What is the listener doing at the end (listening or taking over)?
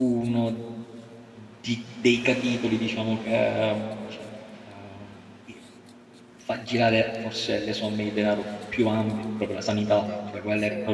listening